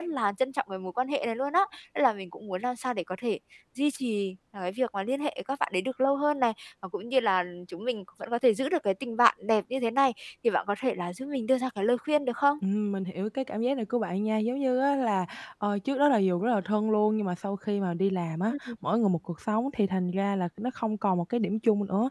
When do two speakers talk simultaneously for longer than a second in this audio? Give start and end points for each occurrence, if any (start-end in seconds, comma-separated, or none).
none